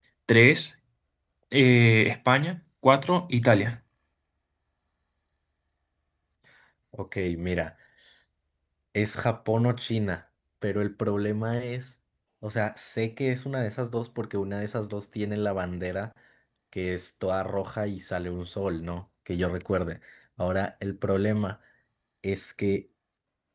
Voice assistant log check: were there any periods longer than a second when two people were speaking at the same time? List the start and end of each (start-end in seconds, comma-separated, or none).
none